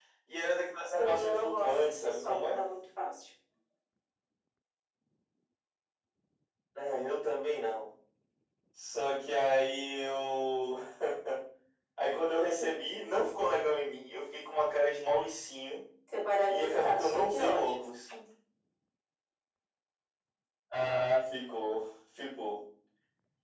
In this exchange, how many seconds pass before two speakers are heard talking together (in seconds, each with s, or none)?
1.0 s